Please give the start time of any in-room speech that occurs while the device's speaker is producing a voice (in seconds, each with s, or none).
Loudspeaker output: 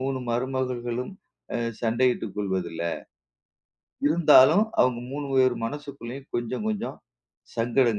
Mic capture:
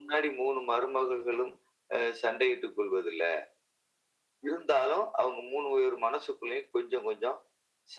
none